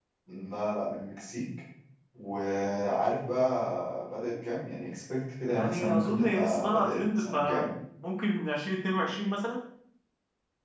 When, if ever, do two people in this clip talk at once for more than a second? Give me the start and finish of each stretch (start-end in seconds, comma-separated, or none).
5.5-7.7